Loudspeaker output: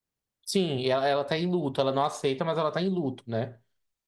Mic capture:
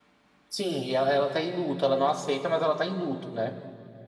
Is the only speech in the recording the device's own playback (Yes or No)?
Yes